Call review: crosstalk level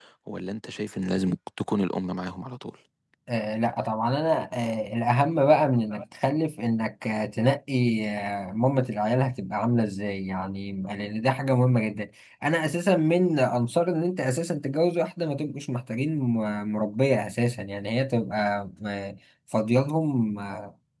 none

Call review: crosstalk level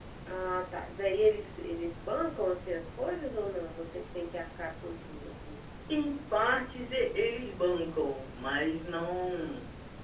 none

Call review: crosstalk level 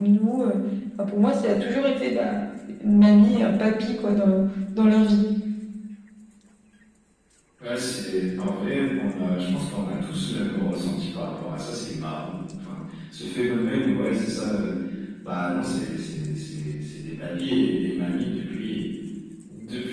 none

